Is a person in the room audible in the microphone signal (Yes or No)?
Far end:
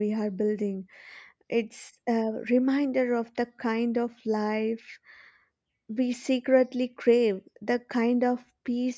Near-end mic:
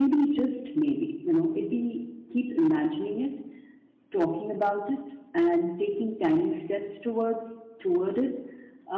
Yes